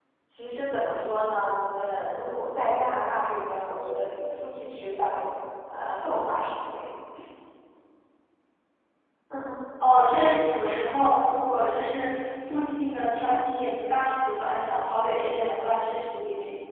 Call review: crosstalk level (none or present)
none